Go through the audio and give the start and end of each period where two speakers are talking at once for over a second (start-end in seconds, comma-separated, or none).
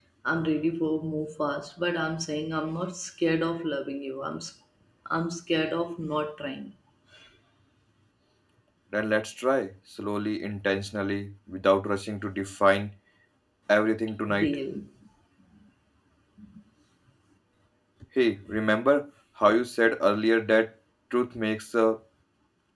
none